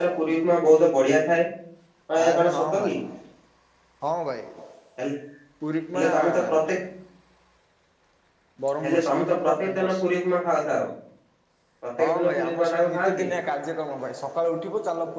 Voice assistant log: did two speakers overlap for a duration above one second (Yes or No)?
Yes